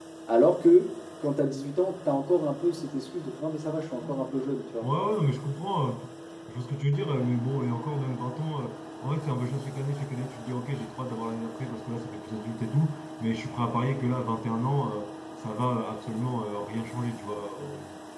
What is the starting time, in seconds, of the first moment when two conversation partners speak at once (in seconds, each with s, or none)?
none